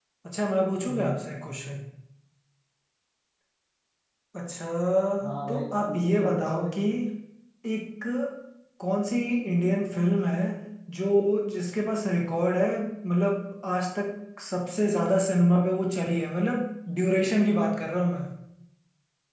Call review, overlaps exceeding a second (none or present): present